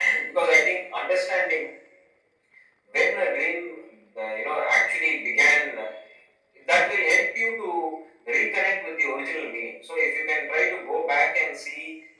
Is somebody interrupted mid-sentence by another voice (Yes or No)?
No